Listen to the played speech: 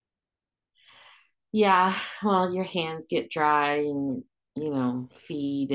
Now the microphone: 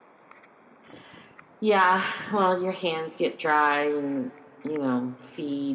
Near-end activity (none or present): none